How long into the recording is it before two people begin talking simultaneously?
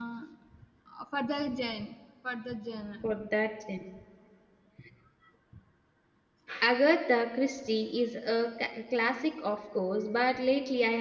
none

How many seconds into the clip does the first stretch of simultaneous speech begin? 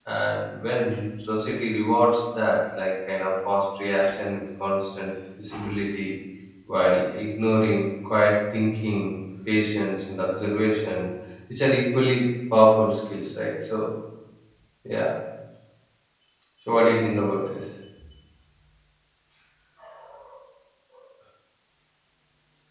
none

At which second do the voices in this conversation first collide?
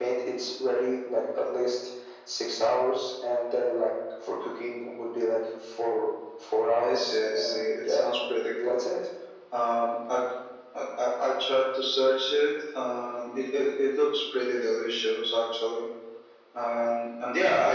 6.8 s

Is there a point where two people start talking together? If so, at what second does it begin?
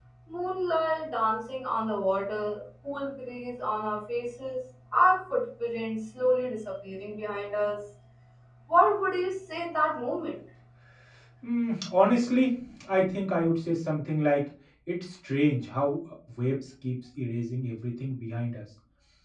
none

